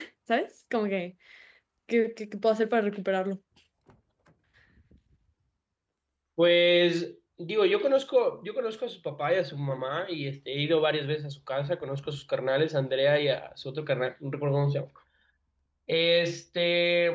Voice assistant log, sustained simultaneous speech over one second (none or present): none